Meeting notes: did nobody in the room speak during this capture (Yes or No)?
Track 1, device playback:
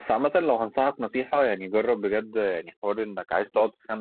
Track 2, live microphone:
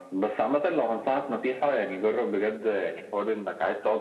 Yes